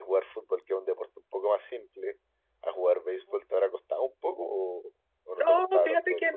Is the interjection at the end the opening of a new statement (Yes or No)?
Yes